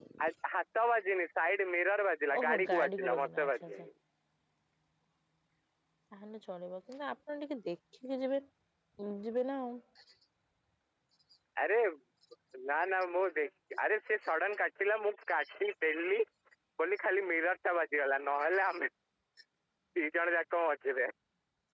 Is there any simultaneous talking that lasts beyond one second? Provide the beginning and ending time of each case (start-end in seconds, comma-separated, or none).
2.4-3.9